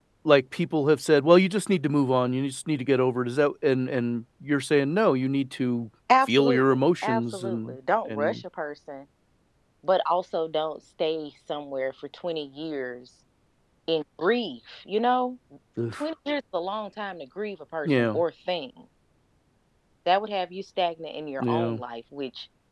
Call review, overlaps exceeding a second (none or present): present